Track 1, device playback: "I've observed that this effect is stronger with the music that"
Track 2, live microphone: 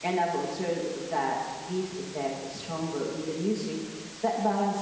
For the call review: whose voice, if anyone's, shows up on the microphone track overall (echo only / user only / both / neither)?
echo only